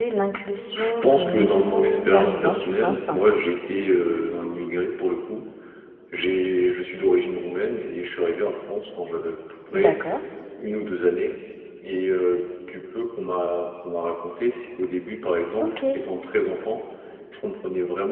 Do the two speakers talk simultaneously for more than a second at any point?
Yes, from 0.8 s

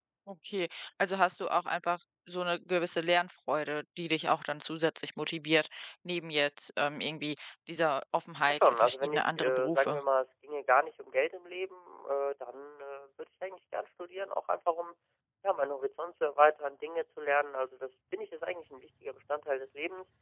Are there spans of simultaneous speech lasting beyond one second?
Yes, from 8.5 s

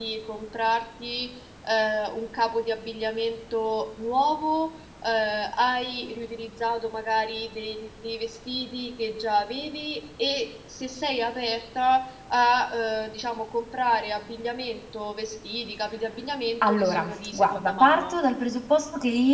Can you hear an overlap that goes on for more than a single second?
Yes, from 16.6 s

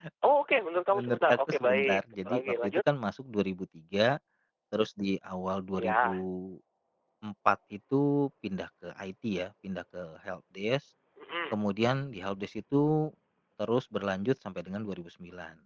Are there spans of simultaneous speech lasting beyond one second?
Yes, from 0.9 s

